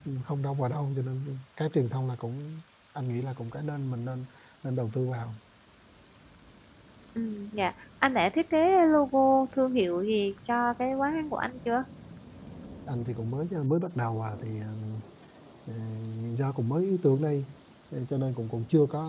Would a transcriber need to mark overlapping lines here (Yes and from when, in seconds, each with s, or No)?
No